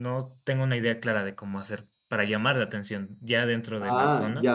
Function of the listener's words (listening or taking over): taking over